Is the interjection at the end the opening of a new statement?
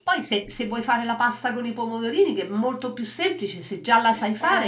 Yes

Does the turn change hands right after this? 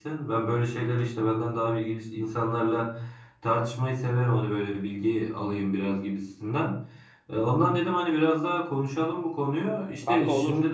No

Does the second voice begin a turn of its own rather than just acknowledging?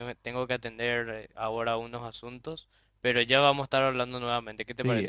Yes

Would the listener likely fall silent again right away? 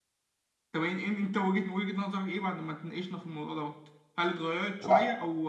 Yes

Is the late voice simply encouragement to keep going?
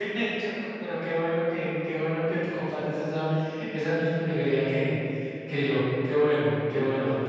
No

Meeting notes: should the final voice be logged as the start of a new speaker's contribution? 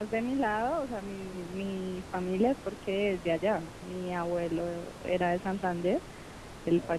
No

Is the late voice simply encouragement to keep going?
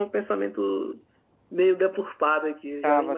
No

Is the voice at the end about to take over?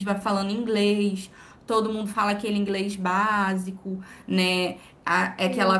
No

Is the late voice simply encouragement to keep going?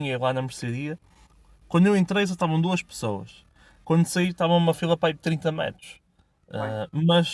Yes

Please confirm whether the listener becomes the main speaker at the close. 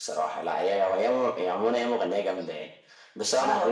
Yes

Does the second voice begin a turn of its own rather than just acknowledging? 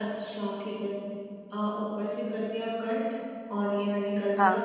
No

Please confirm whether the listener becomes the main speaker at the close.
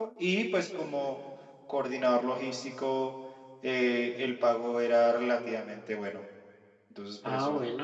Yes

